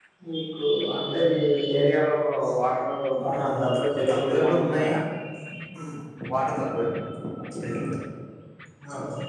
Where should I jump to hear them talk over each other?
3 s

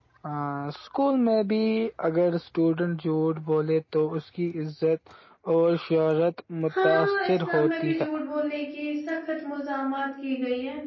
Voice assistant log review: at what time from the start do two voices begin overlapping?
7 s

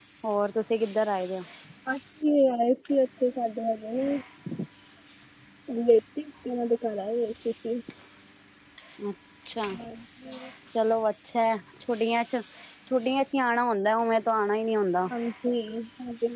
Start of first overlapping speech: none

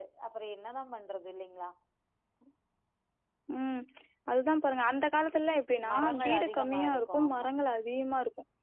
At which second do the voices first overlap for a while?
6 s

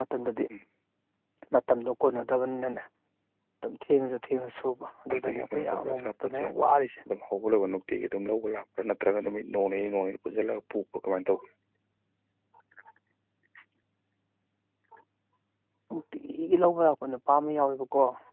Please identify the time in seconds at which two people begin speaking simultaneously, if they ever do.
5 s

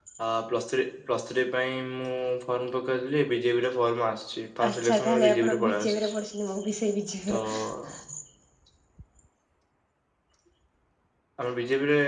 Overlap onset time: 5 s

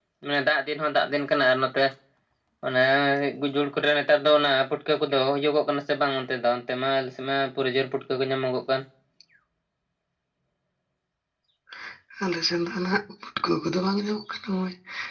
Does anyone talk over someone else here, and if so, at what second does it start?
none

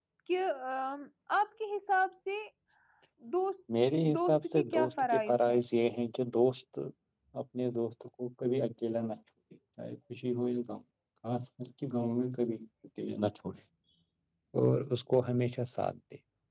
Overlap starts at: 4 s

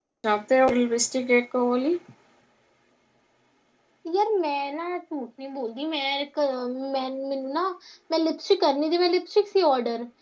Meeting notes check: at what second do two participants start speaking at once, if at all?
none

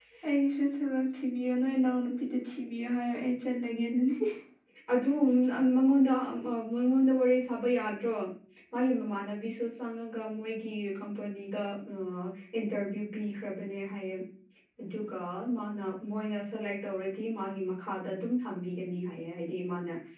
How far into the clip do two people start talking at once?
none

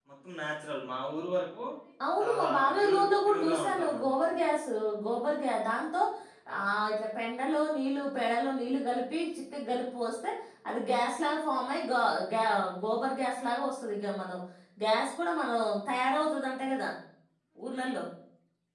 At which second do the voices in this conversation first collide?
2 s

